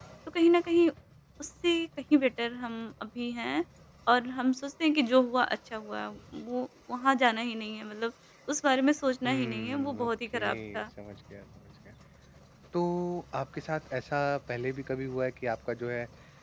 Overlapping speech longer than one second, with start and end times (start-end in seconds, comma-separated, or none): 9.3-10.8